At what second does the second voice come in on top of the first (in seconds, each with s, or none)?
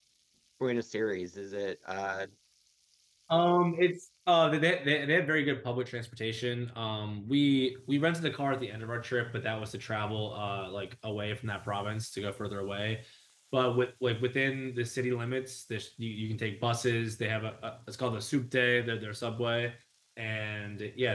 none